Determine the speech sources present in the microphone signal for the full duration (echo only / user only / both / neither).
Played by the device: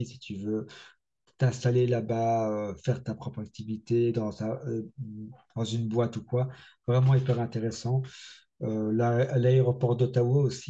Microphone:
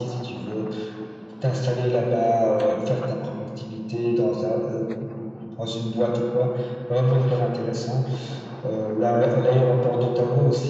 echo only